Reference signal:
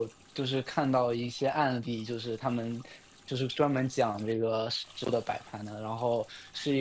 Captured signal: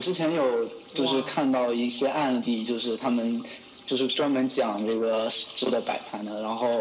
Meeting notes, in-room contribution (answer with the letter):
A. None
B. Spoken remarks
B